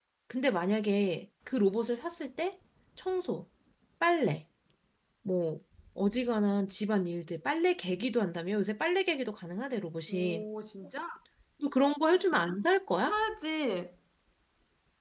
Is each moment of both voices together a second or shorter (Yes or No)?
Yes